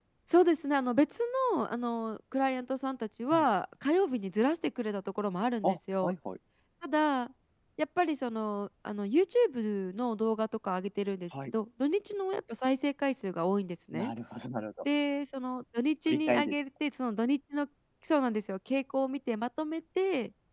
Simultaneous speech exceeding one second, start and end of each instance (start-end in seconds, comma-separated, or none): none